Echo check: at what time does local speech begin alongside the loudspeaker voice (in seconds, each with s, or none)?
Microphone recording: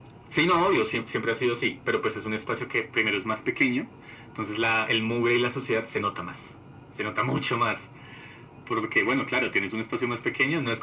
none